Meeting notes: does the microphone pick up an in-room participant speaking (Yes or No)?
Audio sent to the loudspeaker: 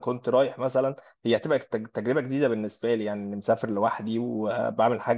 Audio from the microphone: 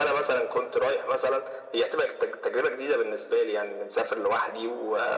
No